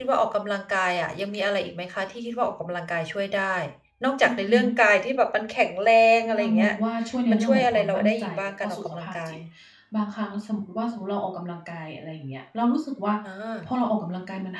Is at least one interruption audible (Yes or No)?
Yes